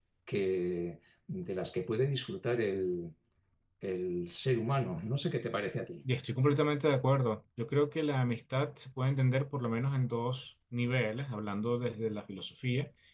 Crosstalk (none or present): none